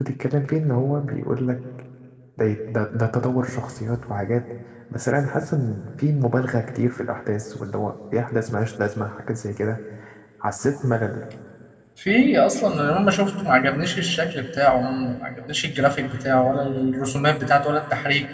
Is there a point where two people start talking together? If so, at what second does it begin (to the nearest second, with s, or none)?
none